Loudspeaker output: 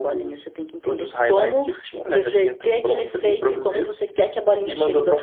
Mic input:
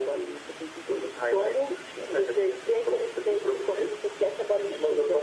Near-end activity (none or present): none